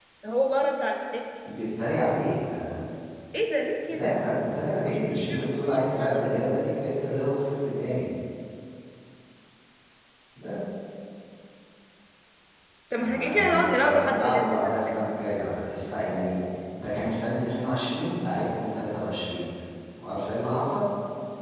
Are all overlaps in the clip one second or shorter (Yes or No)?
No